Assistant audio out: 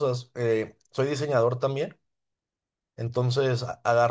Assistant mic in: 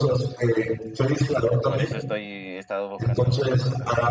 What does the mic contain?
both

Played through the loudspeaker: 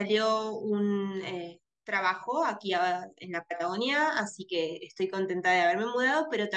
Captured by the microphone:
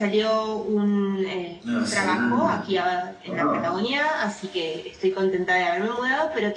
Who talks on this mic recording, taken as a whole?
both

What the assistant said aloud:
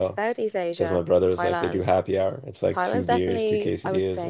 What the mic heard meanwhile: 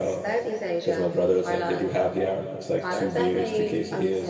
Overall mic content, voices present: echo only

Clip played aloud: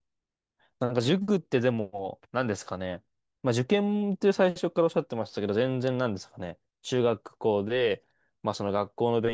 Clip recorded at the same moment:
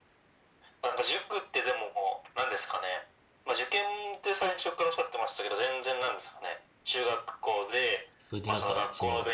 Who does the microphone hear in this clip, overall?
both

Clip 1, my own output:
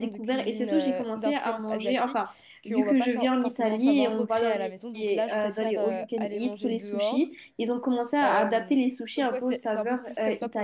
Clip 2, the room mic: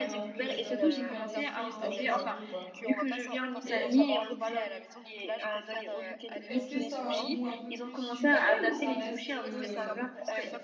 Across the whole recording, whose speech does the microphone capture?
both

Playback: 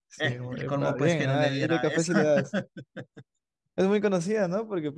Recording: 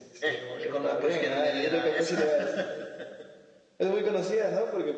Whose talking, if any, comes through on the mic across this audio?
echo only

